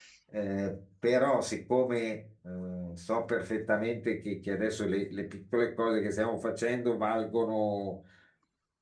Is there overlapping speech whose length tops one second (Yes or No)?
No